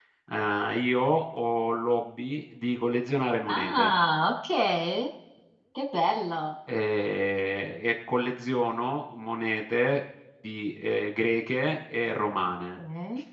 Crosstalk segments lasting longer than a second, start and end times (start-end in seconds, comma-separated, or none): none